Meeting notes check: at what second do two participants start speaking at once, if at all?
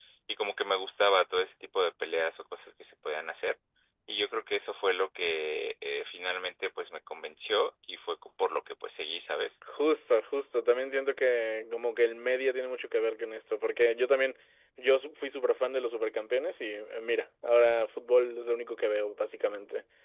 none

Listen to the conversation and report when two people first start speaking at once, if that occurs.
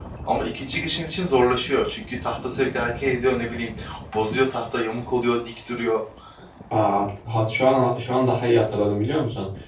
none

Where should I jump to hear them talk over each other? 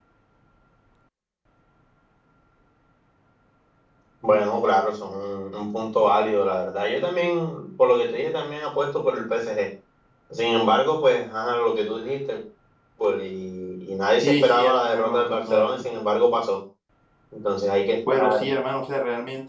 14.2 s

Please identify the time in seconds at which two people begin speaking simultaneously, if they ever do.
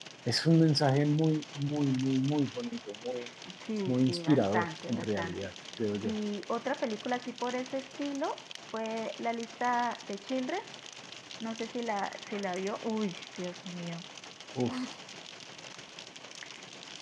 3.9 s

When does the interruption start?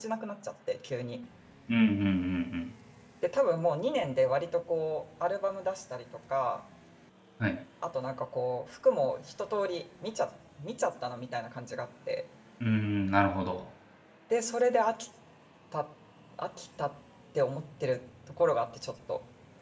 none

